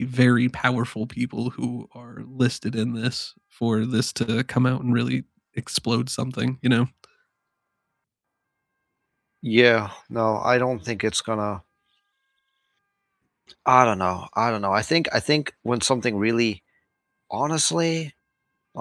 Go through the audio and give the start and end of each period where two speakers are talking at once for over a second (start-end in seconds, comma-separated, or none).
none